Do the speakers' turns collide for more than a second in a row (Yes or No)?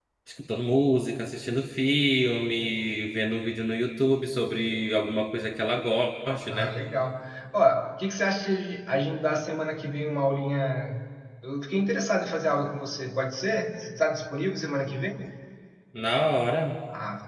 No